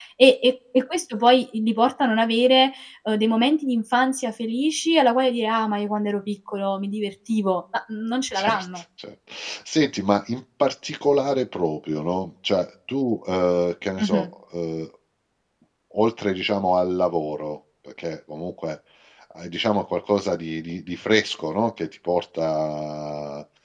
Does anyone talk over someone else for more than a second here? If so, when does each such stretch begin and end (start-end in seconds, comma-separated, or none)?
none